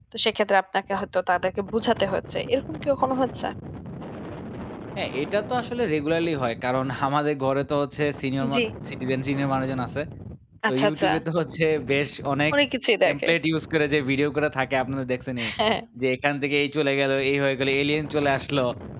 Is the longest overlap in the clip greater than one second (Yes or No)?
No